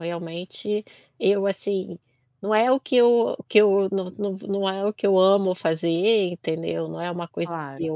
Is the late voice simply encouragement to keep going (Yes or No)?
Yes